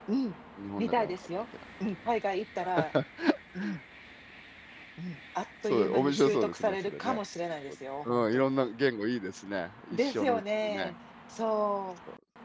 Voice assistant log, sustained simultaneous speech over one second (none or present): present